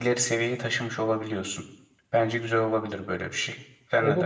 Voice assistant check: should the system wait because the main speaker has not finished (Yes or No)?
No